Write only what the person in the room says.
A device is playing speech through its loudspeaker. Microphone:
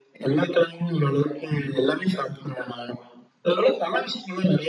none

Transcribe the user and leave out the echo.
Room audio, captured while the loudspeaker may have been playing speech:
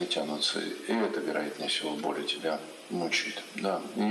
none

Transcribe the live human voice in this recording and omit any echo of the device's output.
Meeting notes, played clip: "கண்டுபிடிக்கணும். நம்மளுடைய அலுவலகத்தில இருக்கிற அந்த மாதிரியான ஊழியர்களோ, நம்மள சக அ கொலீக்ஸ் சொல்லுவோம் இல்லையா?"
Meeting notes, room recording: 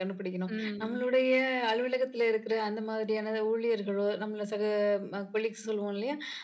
ம்.

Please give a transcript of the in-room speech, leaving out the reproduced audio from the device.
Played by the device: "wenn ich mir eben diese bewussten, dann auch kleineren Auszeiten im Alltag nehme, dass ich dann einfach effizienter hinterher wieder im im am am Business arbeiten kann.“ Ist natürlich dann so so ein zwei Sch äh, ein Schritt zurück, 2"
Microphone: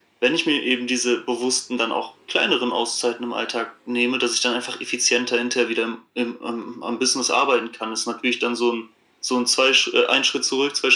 none

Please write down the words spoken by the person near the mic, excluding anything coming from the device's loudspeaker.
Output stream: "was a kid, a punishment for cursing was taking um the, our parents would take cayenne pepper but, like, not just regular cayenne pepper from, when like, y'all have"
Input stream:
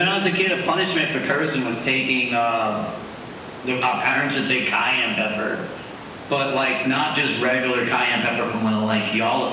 none

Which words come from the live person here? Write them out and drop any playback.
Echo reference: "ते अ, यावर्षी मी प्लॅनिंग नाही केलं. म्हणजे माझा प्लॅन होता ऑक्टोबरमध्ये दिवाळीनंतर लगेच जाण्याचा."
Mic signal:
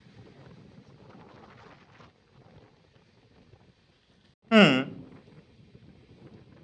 हम्म,

